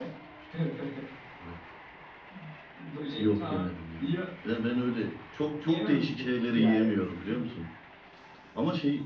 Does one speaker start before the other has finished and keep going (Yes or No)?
Yes